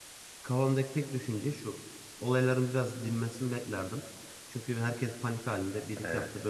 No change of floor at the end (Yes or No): Yes